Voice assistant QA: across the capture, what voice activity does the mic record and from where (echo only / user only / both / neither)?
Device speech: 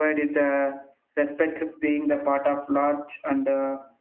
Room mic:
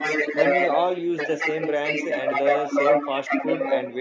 both